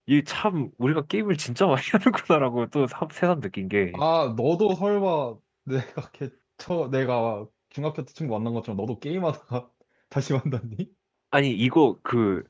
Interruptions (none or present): none